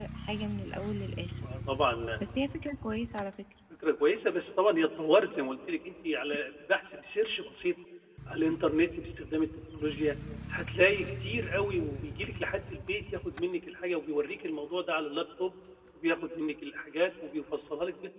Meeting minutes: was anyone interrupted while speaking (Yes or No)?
No